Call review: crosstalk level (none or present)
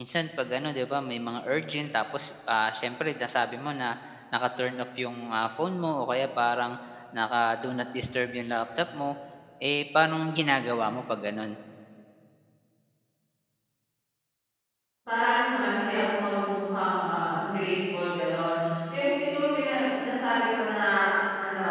none